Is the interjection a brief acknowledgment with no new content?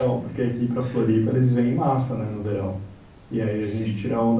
Yes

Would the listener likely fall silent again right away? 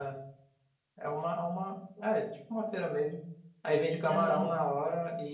Yes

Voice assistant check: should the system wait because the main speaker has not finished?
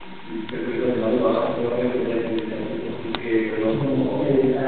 No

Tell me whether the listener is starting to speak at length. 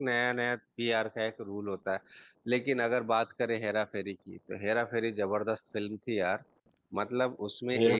No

